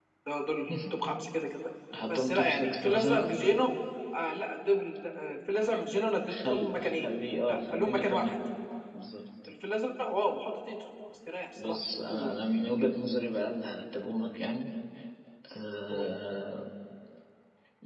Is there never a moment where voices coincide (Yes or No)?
No